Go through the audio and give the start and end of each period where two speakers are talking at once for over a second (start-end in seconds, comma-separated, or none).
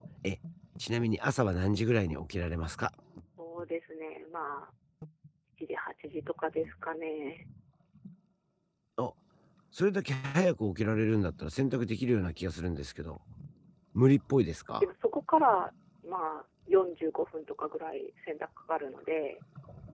none